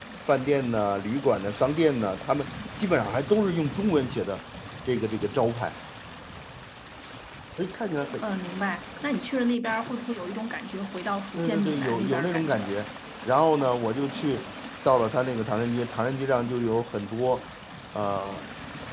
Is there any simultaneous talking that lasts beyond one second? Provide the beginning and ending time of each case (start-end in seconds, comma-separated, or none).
11.4-12.8